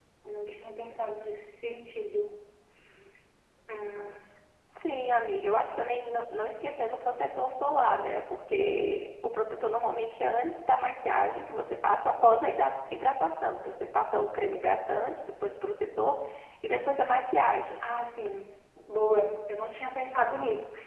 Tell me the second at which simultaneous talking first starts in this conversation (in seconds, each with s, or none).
none